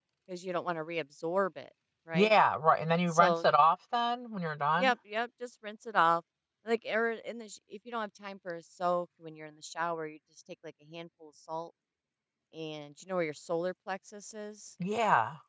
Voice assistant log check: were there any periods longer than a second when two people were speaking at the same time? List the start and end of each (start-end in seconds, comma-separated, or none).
none